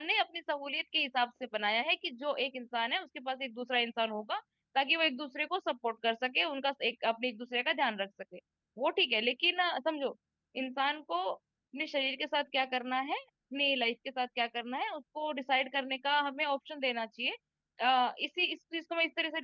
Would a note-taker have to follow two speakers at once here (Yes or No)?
No